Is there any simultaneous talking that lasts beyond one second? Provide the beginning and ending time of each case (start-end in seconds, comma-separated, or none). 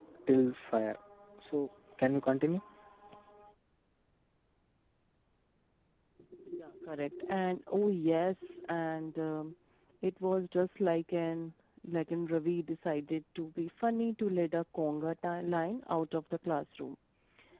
none